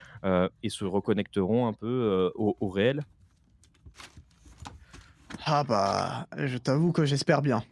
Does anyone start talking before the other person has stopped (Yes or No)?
No